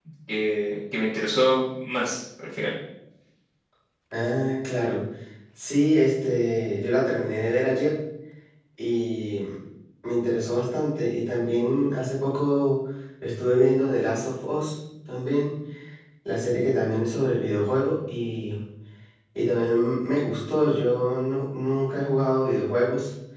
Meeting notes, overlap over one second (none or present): none